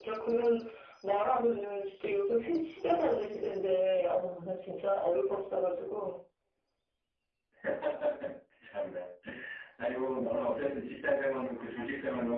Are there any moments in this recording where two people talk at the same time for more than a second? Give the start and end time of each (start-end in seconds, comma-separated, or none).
none